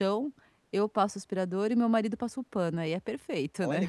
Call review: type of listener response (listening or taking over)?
taking over